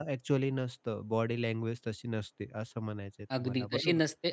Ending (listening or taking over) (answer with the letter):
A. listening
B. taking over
B